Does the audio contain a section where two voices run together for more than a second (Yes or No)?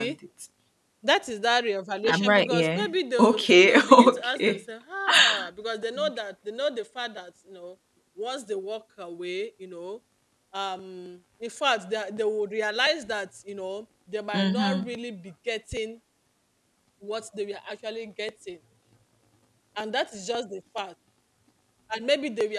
Yes